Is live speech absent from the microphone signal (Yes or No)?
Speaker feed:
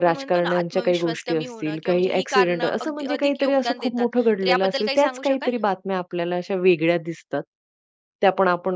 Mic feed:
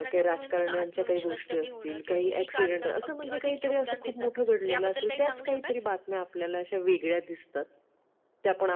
Yes